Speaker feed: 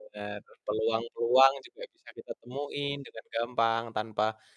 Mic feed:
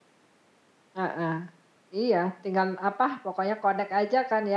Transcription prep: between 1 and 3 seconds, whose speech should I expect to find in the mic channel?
user only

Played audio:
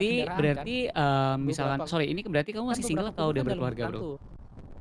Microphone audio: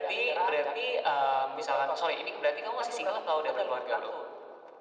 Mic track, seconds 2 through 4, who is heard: echo only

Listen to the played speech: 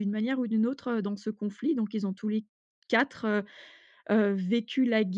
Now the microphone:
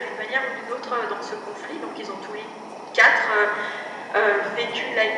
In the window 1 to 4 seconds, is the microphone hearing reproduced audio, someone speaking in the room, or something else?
echo only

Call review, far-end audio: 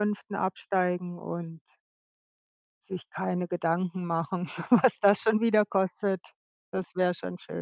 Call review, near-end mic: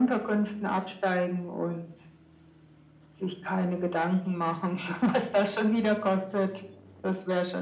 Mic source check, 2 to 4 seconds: echo only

